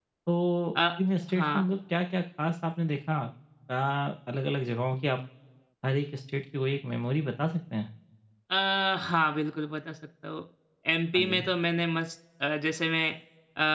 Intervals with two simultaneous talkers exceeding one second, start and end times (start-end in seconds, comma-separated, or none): none